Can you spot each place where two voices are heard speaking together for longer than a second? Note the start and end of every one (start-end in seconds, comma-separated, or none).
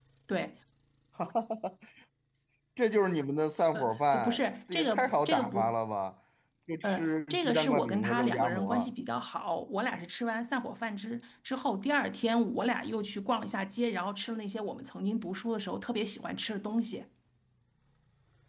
3.7-5.8, 6.8-8.9